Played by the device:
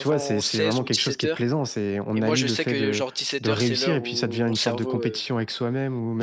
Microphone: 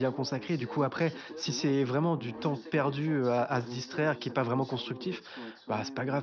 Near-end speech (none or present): present